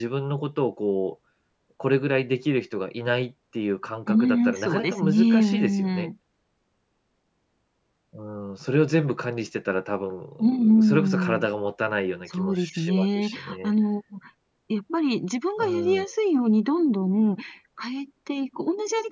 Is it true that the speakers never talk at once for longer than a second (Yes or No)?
No